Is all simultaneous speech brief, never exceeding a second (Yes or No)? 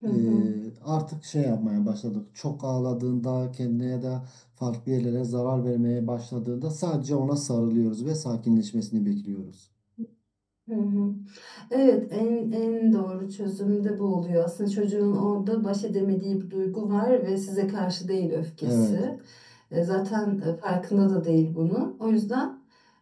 Yes